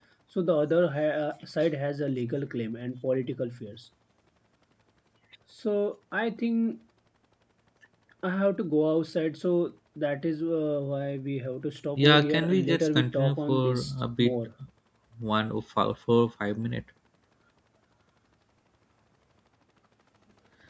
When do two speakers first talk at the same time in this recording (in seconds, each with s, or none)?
12.0 s